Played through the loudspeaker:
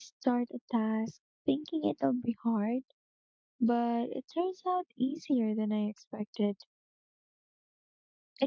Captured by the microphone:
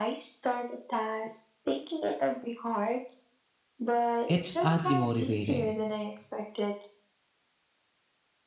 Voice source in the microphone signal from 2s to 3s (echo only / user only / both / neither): echo only